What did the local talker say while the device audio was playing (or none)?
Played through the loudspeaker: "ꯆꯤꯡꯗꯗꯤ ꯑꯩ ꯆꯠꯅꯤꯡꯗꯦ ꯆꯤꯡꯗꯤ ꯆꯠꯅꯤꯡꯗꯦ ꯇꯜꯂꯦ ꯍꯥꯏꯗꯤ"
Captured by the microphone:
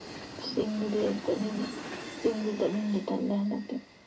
none